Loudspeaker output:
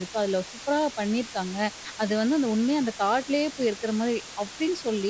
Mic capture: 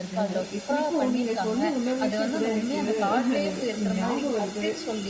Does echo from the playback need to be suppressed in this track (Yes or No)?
Yes